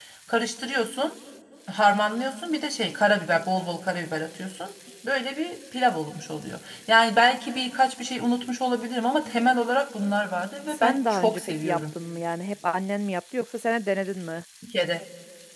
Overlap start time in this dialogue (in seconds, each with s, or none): 10.7 s